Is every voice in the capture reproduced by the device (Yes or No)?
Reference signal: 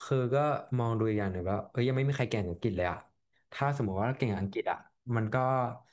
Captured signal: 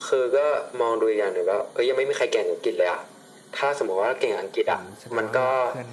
No